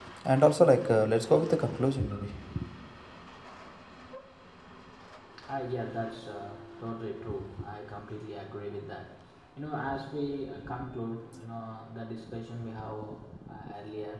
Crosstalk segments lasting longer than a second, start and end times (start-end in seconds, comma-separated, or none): none